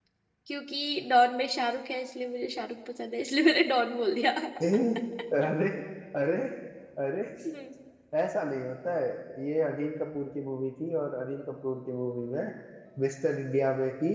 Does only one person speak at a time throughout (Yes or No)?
Yes